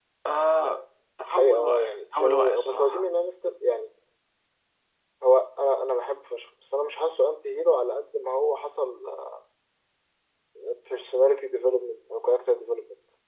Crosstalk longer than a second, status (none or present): present